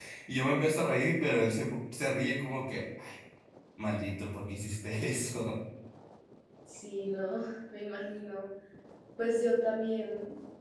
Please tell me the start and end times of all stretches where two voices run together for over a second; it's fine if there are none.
none

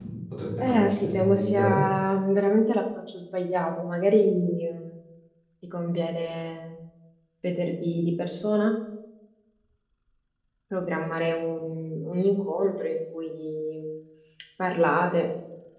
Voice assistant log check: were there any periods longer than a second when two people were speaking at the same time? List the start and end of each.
0.6-1.9

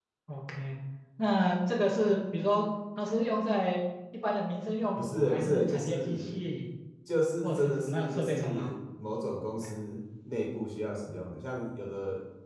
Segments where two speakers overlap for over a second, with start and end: 5.0-6.3, 7.4-8.7

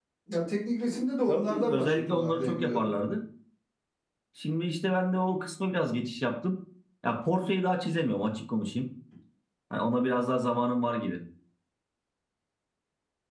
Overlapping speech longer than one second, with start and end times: 1.3-3.0

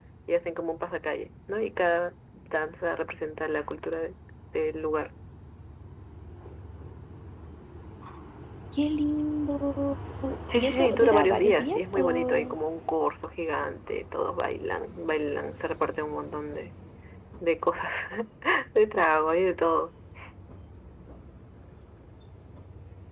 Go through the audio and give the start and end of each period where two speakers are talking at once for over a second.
10.5-12.5

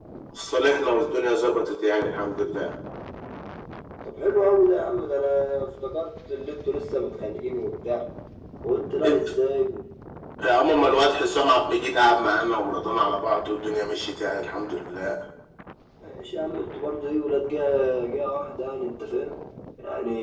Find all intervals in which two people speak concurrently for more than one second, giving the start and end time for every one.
none

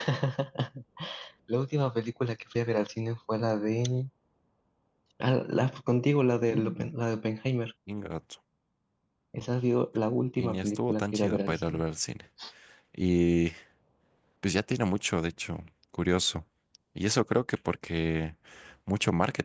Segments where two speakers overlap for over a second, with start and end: 10.4-11.8

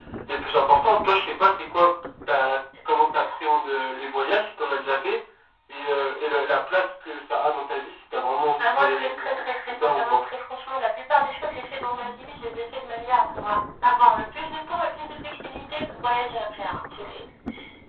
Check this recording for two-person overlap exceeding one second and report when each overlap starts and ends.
8.6-10.2

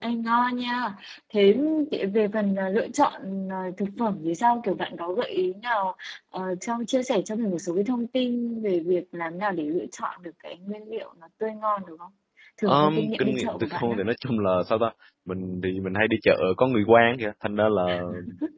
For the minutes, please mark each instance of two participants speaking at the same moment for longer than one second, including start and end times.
12.7-14.0

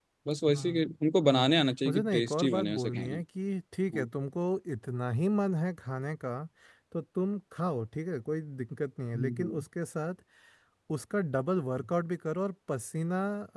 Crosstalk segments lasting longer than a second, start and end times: 1.9-3.2

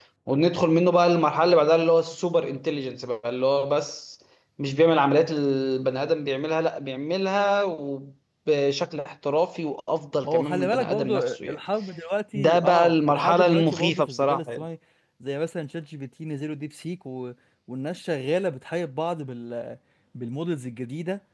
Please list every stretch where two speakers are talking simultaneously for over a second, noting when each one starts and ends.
10.2-11.6, 12.3-14.6

